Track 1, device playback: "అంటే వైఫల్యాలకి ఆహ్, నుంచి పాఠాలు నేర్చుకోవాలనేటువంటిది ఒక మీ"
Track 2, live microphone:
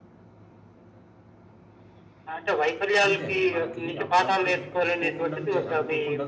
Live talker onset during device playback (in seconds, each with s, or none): 3.1 s